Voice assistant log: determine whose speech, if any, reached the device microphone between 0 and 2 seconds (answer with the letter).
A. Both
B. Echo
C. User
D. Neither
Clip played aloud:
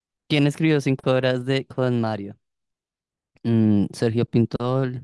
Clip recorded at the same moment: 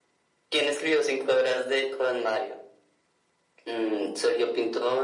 B